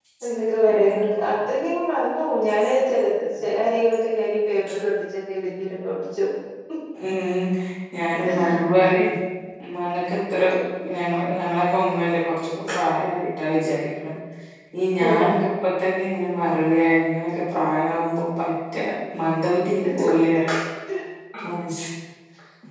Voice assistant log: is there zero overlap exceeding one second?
Yes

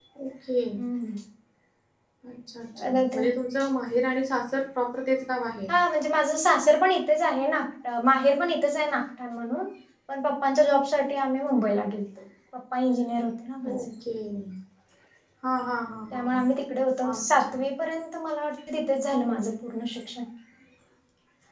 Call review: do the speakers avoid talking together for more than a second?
Yes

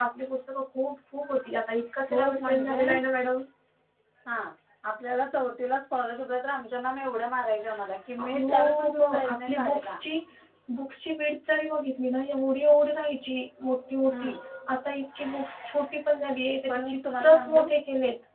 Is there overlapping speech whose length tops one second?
Yes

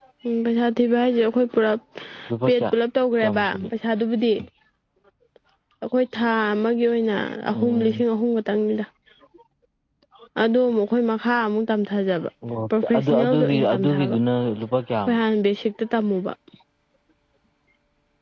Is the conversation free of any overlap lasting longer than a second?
No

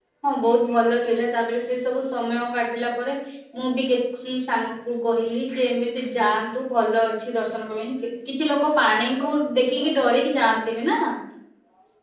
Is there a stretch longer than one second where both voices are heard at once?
No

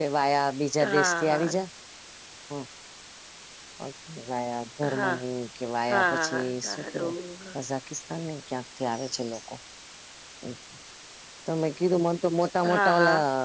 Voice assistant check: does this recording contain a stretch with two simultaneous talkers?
Yes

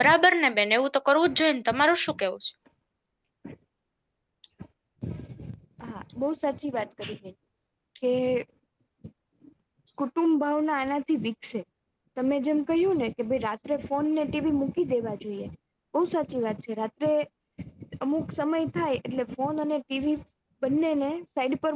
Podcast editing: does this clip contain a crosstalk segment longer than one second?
No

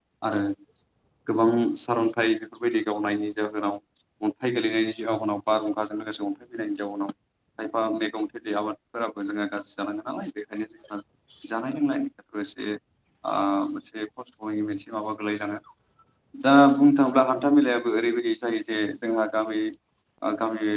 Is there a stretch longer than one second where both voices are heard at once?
No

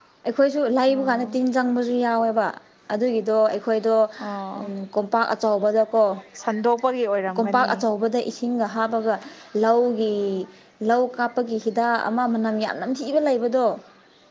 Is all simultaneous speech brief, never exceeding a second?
Yes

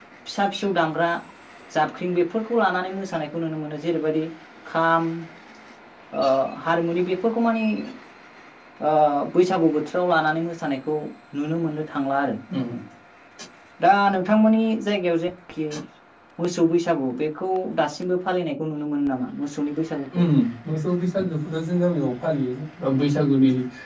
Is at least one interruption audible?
No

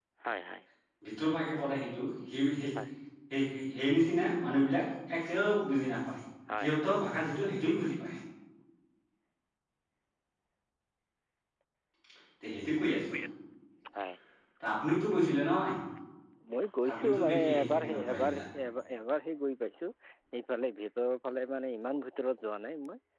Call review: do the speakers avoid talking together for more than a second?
No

